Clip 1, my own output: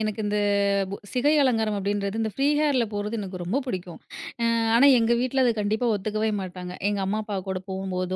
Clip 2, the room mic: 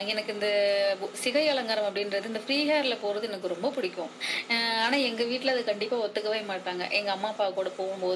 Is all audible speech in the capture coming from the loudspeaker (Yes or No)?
Yes